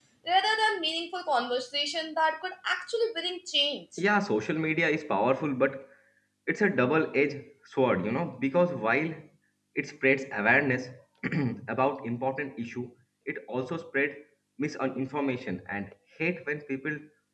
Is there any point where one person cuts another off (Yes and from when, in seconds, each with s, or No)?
No